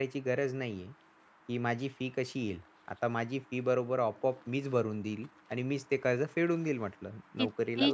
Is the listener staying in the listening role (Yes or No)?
No